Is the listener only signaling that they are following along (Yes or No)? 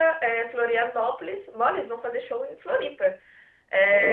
Yes